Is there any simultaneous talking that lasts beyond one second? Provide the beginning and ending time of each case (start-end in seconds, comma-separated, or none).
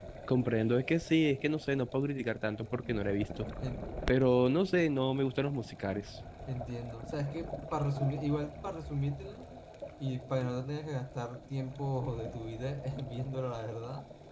none